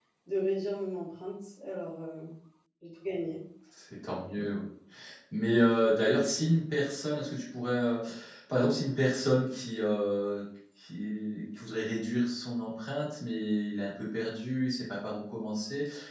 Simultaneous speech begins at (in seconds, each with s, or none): none